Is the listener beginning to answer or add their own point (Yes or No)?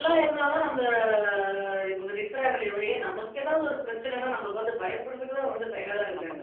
Yes